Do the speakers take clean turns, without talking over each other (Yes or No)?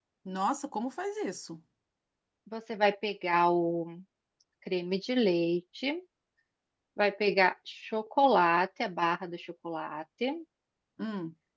Yes